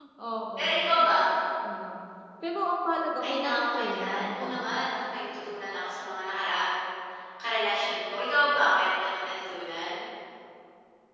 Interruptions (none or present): present